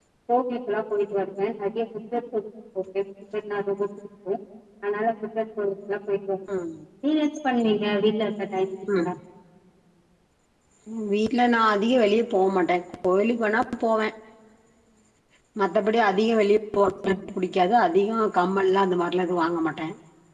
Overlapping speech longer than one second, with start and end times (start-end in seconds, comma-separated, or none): none